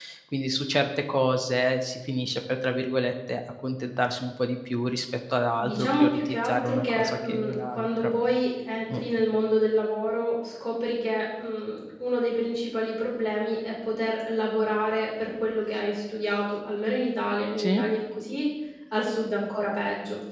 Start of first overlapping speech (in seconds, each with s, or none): 5.6 s